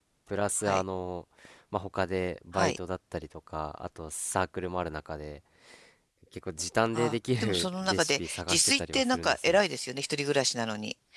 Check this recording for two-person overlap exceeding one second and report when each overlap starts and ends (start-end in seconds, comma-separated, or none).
6.9-9.6